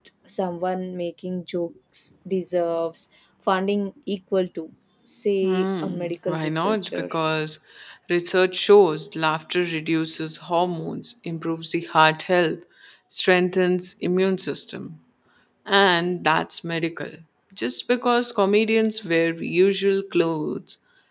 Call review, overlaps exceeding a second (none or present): present